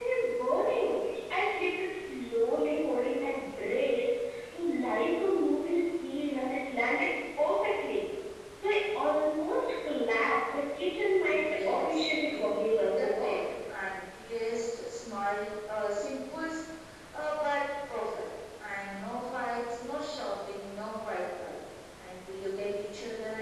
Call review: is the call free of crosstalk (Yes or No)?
No